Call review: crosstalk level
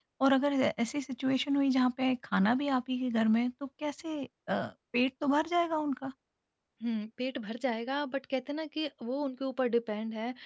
none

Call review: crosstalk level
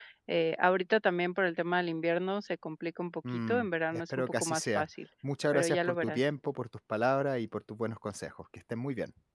present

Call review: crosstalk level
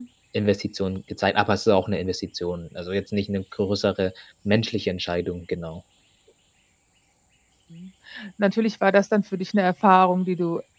none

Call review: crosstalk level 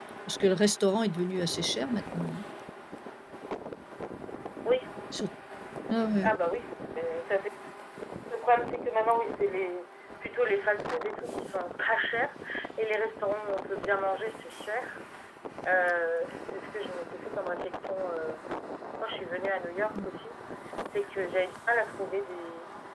none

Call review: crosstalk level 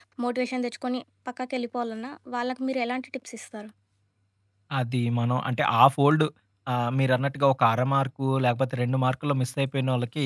none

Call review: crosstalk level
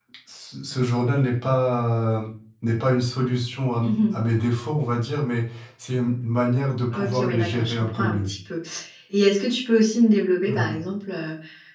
present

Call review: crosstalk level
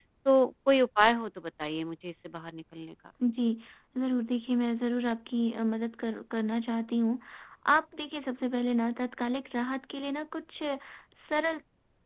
none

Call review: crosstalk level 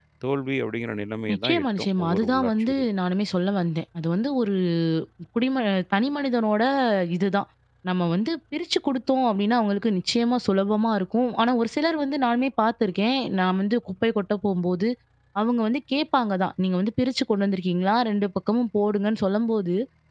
present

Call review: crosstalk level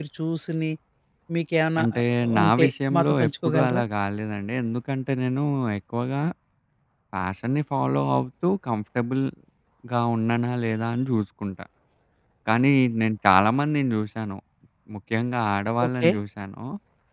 present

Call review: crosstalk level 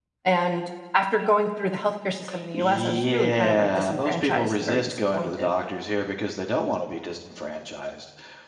present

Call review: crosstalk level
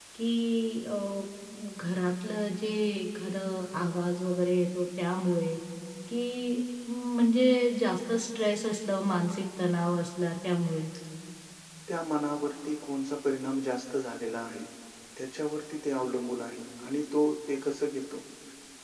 none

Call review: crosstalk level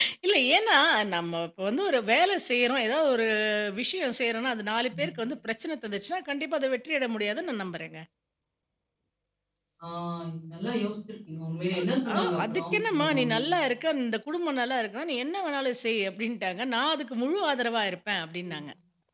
present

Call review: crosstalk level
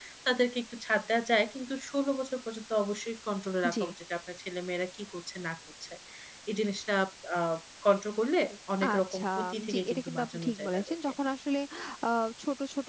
present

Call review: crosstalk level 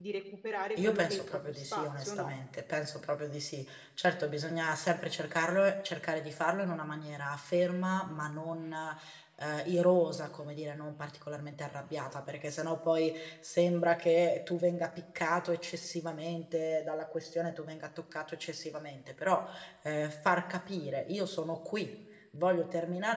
present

